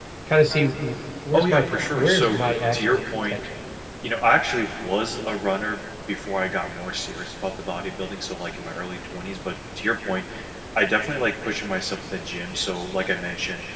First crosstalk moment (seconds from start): 1 s

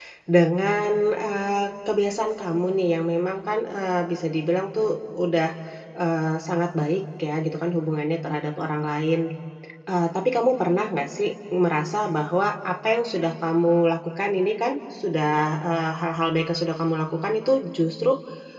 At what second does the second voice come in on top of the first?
none

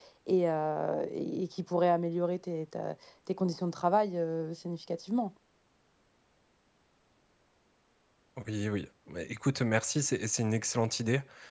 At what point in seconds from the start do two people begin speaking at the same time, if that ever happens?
none

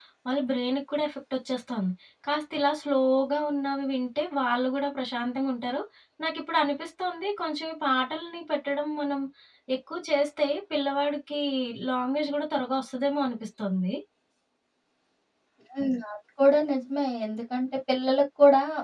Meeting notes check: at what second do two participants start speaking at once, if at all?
none

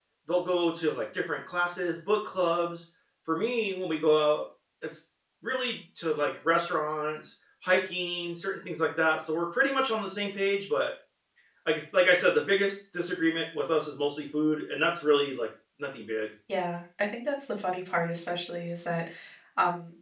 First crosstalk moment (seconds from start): none

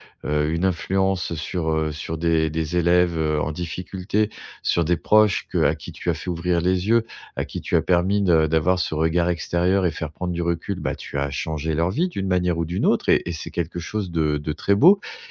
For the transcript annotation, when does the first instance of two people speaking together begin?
none

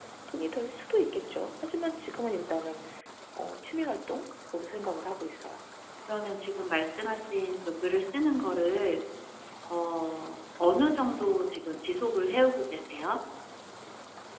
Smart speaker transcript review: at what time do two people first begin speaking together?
none

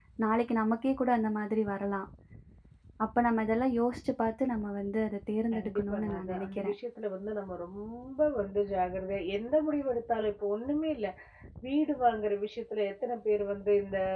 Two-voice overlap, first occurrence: 6 s

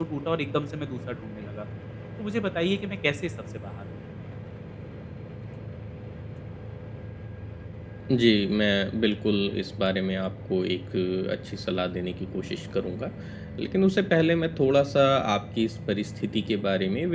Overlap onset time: none

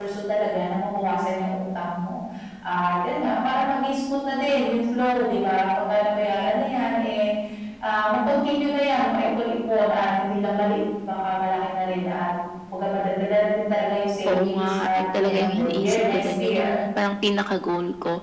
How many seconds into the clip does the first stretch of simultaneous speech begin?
14 s

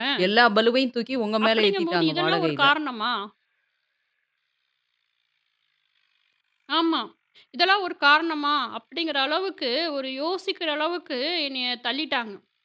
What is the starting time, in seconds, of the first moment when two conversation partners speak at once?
1 s

